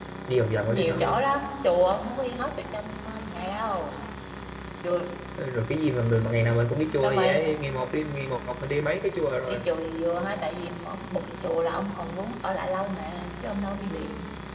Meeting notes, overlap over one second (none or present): none